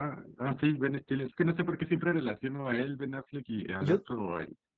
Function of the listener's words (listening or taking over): listening